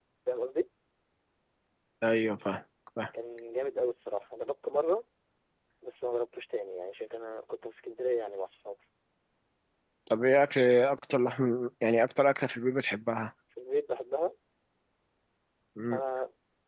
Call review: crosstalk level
none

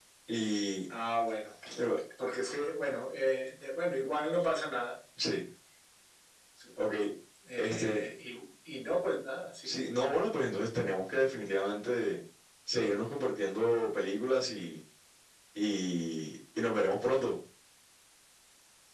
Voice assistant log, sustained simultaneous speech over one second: none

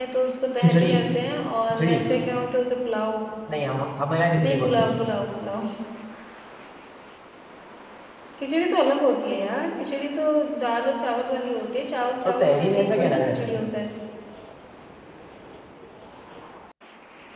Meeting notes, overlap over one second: present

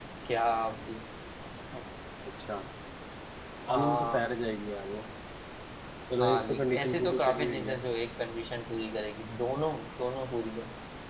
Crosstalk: present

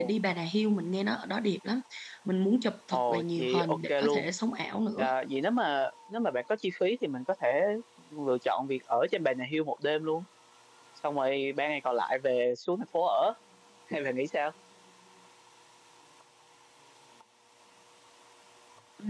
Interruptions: present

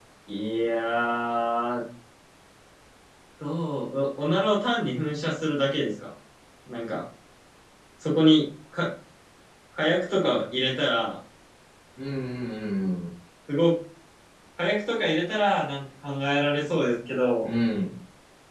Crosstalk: none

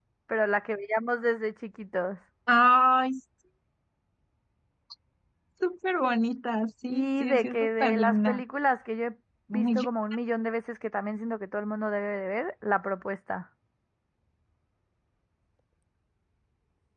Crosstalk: present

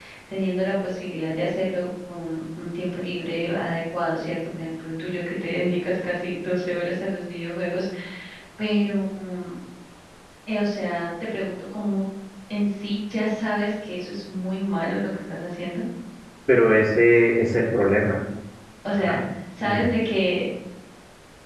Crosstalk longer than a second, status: none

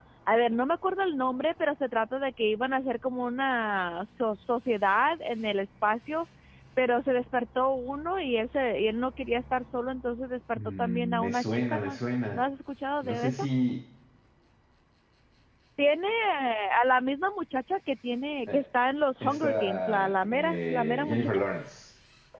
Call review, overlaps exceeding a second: present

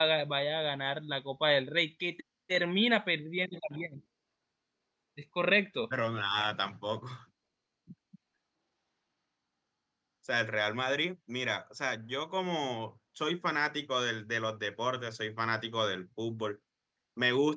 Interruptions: none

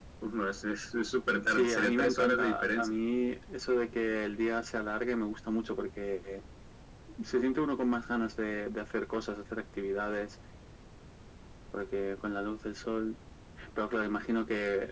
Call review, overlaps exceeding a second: present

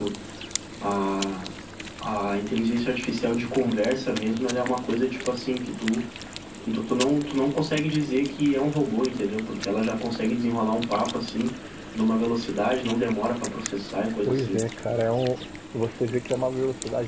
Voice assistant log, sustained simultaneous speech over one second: none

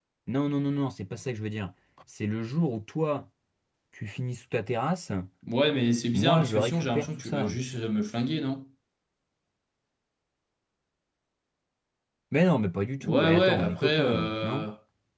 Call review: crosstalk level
present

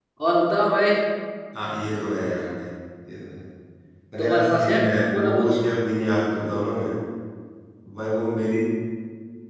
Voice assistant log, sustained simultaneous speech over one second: present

